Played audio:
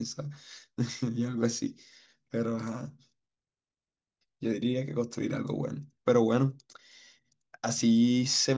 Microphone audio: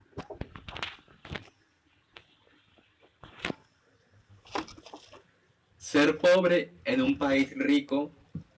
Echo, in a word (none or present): none